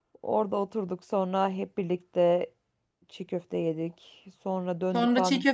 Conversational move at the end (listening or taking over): taking over